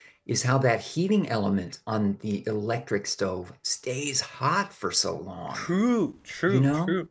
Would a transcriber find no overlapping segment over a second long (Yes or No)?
Yes